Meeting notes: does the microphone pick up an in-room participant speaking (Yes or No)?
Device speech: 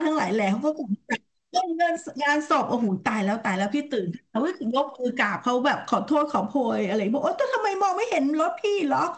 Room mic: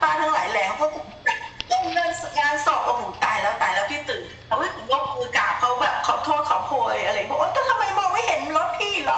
No